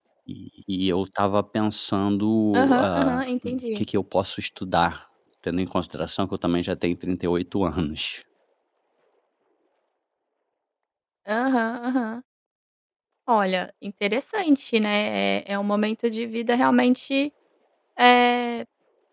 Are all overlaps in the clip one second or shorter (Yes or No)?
No